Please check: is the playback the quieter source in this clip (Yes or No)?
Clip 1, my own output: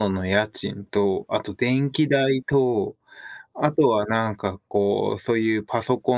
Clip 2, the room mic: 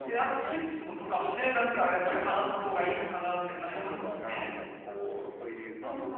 Yes